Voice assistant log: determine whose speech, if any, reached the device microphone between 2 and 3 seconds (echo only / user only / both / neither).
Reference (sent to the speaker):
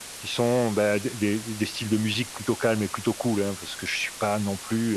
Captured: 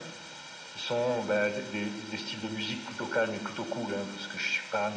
echo only